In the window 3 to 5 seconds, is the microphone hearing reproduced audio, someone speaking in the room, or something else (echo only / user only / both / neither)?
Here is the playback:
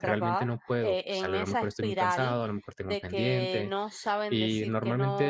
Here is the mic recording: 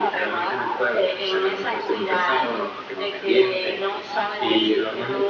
echo only